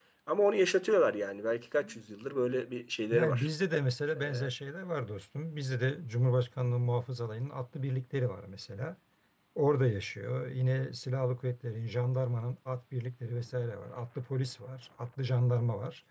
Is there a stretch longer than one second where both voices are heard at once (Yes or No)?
No